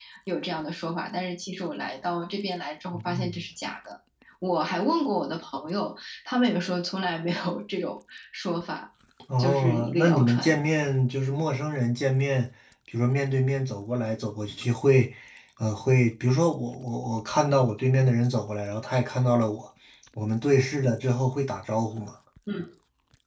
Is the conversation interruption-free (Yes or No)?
No